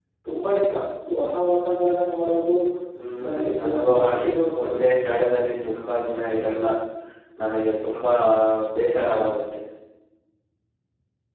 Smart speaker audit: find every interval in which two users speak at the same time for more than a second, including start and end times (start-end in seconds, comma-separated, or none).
3.2-4.7